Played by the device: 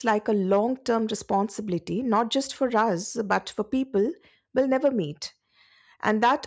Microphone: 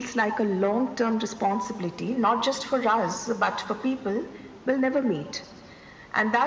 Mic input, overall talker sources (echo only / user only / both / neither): echo only